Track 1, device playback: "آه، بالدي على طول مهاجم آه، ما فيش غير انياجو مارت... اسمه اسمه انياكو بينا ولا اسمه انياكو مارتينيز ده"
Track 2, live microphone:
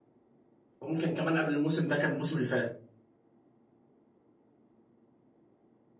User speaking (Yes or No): Yes